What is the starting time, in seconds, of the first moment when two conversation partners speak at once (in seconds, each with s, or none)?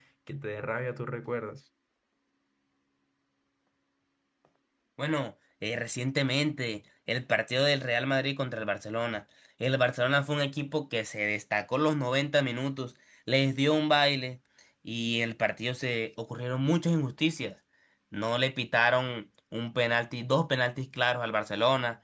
none